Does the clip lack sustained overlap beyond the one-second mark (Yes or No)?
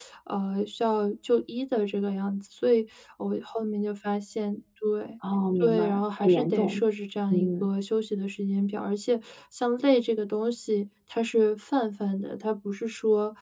No